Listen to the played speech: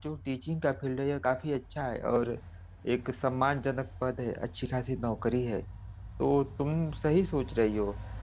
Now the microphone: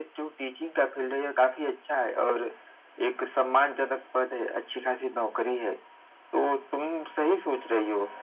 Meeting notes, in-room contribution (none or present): none